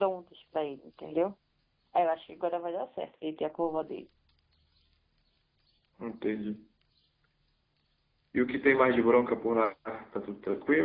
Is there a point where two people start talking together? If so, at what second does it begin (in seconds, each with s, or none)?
none